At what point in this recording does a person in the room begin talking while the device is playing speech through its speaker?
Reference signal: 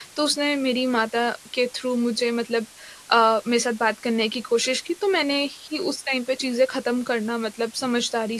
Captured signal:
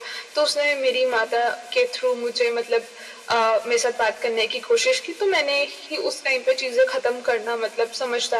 none

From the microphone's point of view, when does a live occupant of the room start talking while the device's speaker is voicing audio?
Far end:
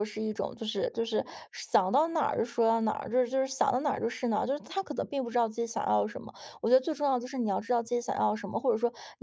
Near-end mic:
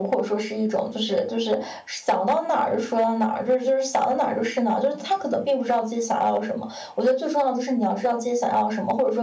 none

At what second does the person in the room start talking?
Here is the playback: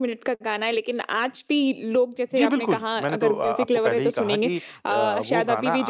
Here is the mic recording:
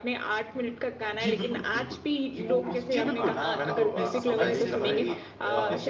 1 s

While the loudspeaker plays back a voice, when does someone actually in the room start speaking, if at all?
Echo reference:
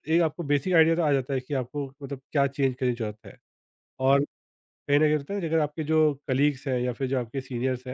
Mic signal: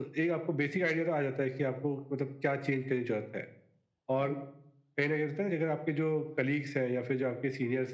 none

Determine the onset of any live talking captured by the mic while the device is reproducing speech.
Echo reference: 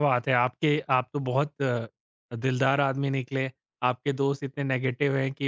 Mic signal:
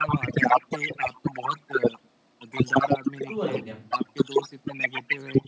3 s

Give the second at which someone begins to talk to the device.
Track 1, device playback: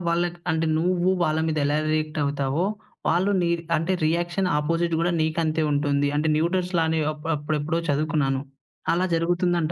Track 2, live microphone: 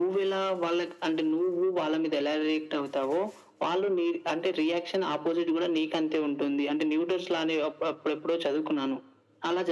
none

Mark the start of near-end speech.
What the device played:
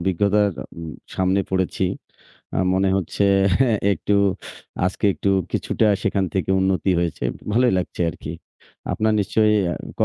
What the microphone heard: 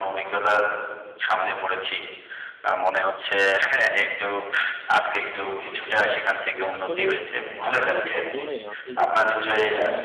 7 s

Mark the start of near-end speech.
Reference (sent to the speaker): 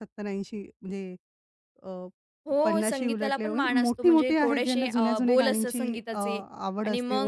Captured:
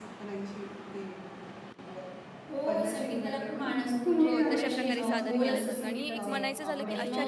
4 s

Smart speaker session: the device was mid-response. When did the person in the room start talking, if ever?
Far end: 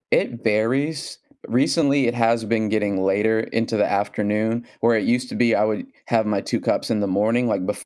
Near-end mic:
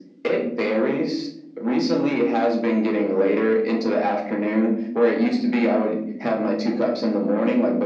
none

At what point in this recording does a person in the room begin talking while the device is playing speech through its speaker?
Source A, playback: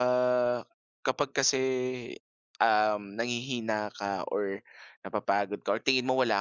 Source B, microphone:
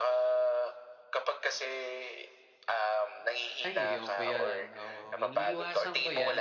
4 s

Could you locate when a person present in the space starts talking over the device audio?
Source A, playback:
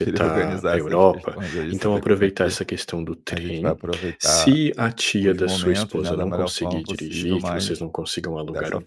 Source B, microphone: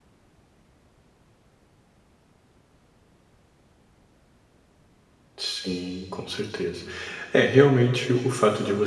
5 s

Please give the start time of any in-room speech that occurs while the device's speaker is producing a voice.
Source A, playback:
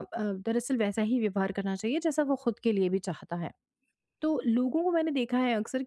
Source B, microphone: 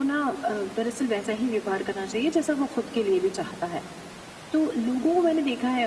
none

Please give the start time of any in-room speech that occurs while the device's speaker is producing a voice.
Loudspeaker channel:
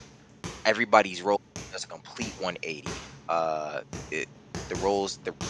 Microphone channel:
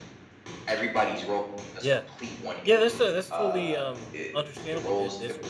2 s

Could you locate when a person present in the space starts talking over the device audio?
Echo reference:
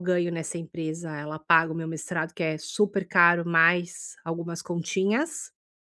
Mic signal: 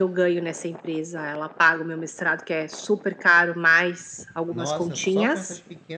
4 s

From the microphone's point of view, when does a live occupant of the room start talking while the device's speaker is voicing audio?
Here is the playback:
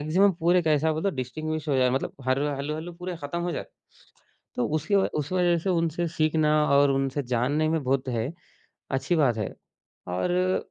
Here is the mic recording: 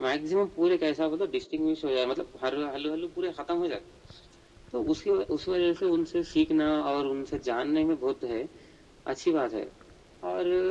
none

